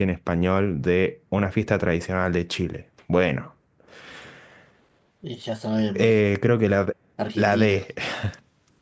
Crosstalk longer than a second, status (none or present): none